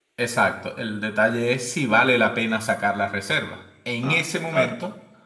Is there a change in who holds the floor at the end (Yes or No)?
No